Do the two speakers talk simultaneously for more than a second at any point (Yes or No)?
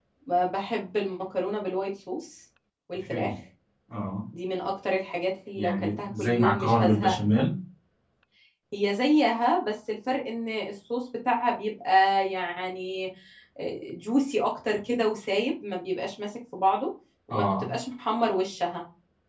Yes